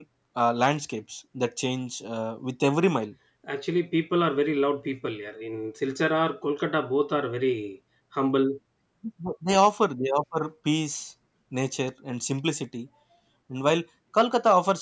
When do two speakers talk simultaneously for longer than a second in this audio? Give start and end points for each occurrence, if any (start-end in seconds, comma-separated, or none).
none